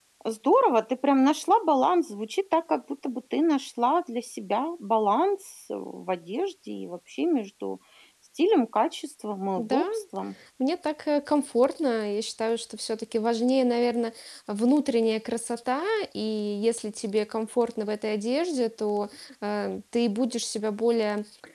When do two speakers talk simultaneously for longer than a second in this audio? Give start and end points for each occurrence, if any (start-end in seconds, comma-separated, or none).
none